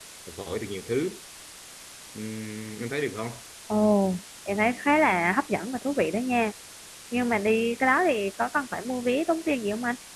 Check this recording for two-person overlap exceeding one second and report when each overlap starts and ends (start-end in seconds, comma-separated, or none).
none